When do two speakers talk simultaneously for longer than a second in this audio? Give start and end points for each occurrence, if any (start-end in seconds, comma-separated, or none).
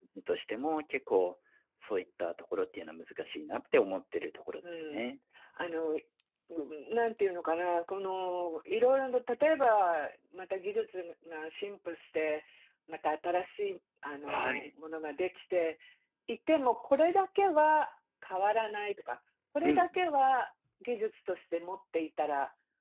none